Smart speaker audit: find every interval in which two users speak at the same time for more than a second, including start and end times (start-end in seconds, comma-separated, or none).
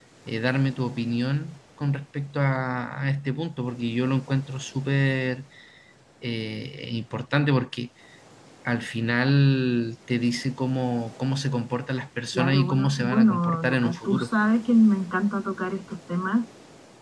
12.4-14.3